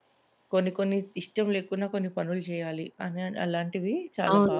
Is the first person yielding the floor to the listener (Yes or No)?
Yes